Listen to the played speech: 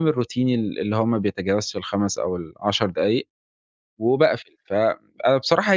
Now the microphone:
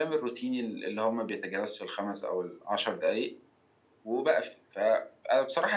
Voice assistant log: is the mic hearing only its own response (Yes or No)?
Yes